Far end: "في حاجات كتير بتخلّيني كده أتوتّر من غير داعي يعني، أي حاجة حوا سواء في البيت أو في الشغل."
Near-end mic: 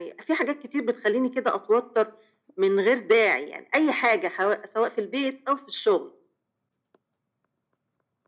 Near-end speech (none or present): none